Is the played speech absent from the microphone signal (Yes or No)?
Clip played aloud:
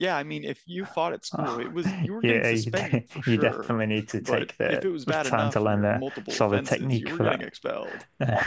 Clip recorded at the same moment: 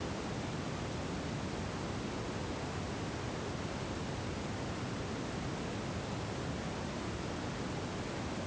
Yes